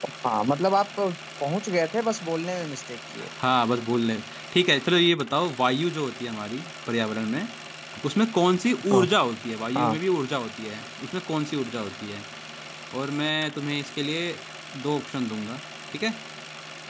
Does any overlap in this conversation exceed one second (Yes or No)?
No